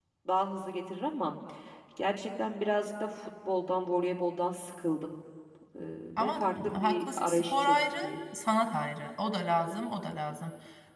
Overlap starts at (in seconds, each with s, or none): 6.2 s